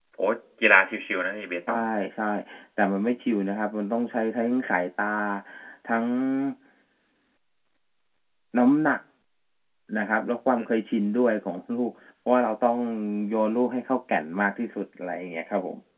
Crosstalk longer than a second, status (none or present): none